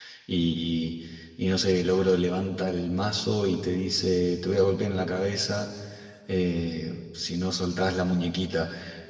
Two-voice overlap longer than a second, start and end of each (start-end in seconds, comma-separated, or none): none